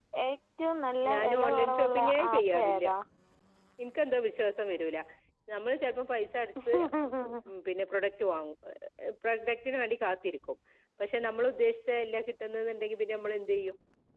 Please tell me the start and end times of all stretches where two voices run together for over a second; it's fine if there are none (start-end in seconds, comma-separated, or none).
1.1-2.9